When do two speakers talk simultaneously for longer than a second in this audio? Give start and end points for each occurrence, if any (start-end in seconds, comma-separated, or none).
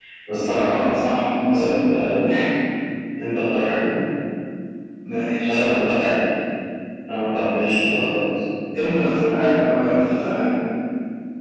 none